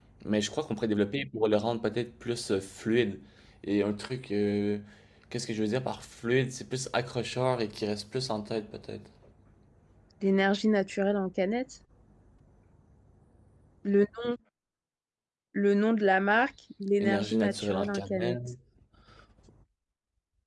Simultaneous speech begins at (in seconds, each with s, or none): 17.0 s